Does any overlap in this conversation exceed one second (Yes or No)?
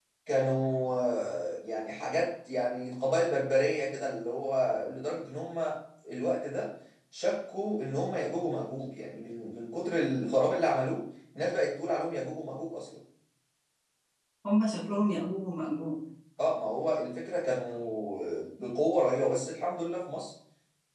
No